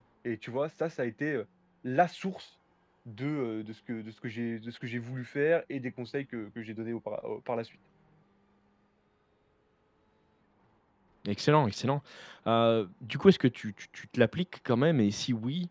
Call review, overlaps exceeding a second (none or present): none